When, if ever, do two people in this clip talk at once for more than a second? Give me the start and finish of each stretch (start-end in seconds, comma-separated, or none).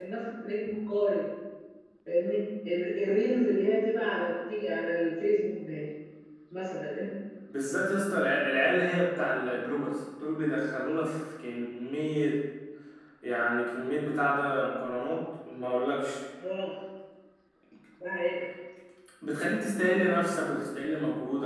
none